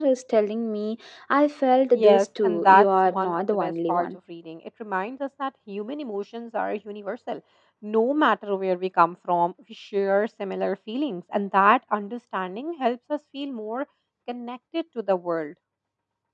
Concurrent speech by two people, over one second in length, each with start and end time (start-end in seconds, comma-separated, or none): 1.9-4.1